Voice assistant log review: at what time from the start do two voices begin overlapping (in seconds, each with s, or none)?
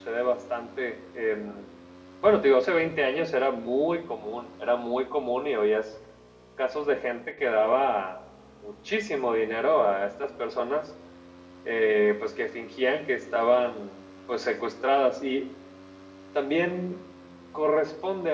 none